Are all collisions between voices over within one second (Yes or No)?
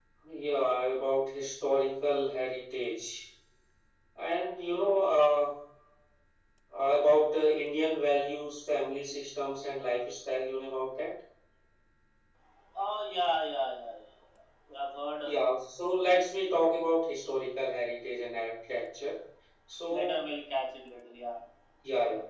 Yes